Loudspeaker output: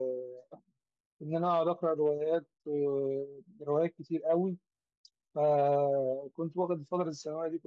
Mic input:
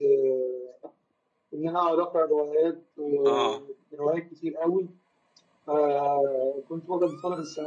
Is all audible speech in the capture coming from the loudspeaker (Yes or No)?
No